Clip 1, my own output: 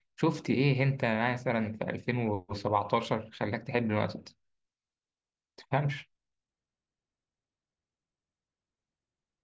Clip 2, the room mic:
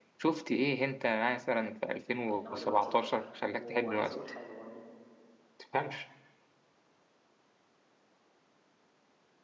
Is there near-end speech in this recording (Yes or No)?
Yes